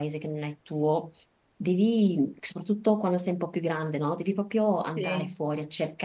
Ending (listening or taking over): listening